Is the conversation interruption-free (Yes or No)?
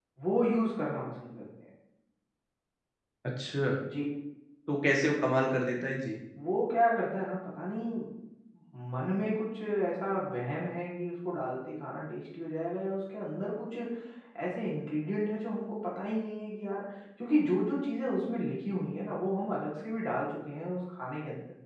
Yes